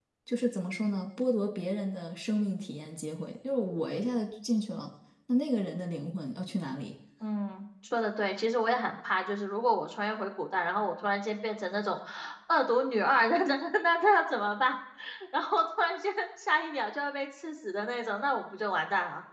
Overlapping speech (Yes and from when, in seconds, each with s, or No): No